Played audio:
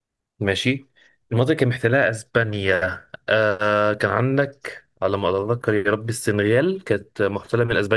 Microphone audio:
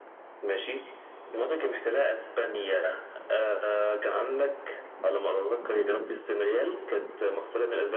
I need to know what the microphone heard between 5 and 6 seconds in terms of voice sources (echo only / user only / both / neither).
echo only